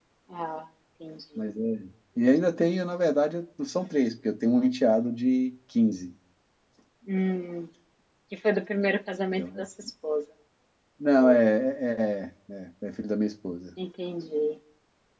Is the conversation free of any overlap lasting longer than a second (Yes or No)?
Yes